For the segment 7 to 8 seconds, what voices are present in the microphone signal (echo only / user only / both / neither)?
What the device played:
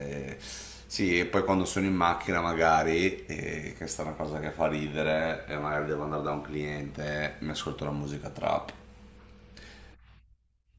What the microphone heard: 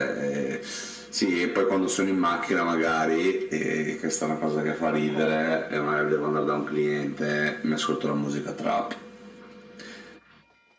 echo only